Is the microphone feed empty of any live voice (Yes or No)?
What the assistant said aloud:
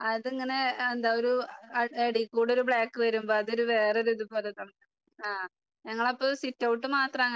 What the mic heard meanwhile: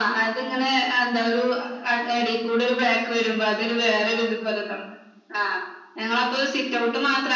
Yes